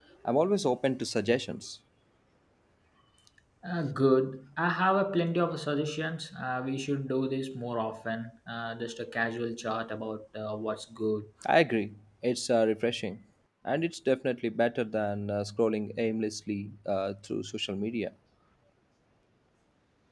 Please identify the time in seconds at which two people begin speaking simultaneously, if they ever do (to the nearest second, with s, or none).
none